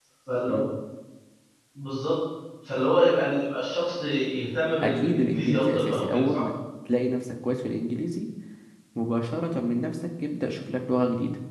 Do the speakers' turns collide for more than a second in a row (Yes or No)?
Yes